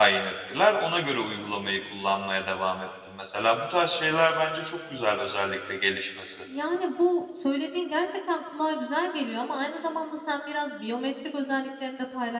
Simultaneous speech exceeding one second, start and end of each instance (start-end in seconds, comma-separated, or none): none